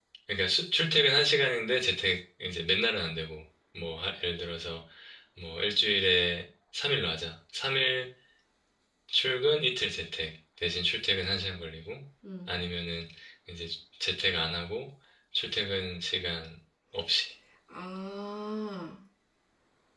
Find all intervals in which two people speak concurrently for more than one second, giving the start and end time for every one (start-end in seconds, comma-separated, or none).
none